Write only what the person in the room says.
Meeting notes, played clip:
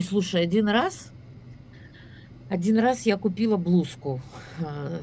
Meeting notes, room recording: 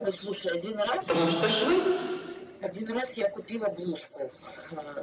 Потому что швы.

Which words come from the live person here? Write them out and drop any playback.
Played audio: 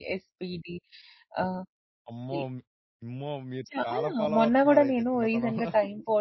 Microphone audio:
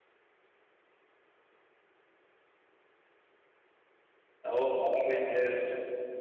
ఓహ్! పవర్ రేంజర్స్

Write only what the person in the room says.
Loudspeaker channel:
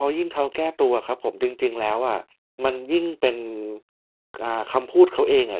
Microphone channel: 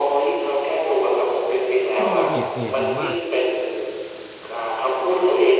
ก็จะมีเพจเพจหนึ่งว่า

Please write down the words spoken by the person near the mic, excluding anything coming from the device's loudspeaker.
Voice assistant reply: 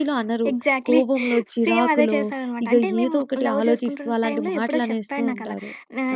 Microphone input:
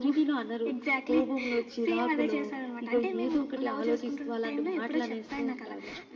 none

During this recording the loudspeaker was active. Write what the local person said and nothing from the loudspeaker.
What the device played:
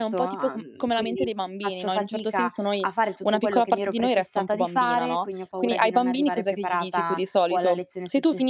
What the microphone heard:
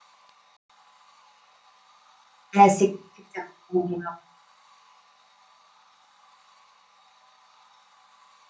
Eh, sì. Si accumula.

